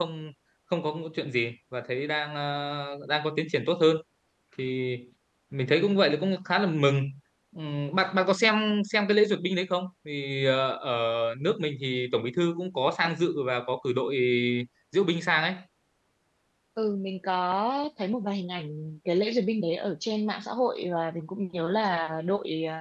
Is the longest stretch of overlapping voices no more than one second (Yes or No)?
Yes